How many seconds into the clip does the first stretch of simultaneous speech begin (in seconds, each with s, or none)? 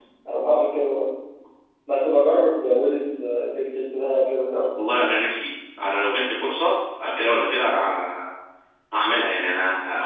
none